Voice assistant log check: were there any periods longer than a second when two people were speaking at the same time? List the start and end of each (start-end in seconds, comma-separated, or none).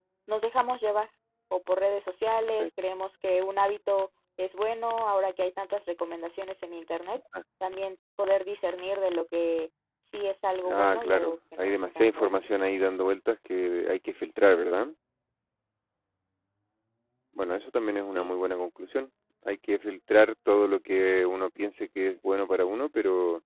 10.6-12.4